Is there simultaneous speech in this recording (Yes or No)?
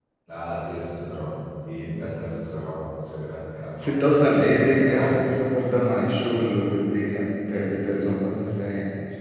Yes